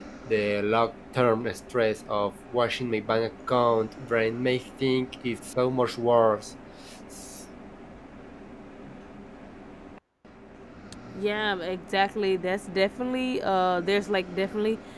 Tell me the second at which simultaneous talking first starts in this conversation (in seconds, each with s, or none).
none